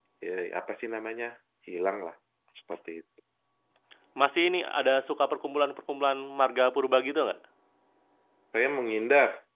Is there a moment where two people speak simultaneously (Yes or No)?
No